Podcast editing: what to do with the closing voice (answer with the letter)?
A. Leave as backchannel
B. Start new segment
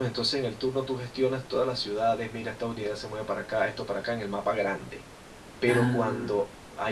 A